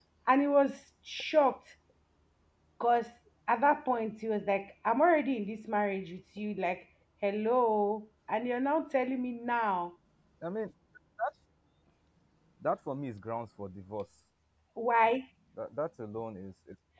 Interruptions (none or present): none